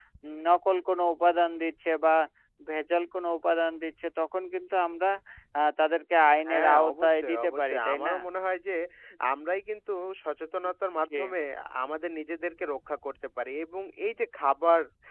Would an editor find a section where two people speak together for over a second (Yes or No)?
Yes